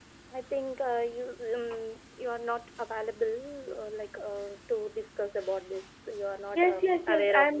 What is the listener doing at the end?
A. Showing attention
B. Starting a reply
B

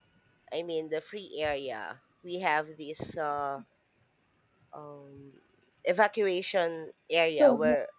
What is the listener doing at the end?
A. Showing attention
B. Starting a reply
A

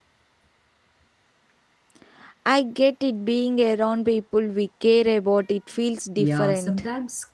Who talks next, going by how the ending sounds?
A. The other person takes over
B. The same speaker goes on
A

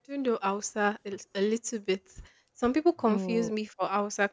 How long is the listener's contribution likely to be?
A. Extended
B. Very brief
B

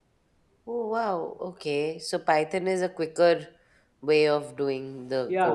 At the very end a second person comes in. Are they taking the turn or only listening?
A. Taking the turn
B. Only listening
A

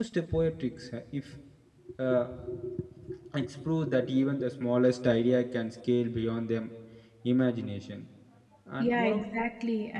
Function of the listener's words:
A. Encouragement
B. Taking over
B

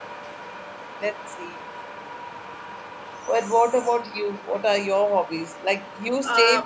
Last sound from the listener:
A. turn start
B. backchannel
B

